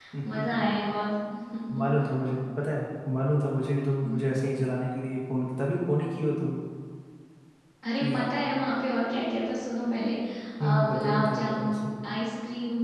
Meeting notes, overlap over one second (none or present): present